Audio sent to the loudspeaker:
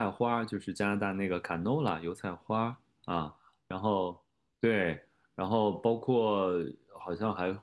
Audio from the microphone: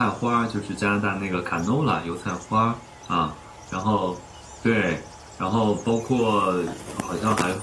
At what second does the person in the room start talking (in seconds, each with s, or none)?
none